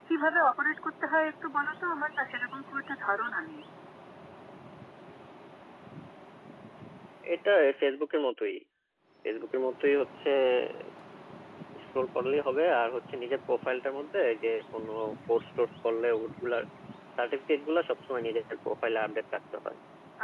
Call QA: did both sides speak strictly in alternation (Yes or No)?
Yes